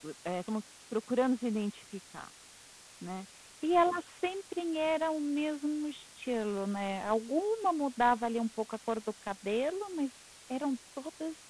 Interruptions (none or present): none